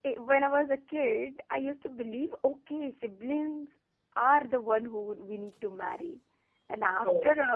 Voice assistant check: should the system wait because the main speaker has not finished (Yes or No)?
Yes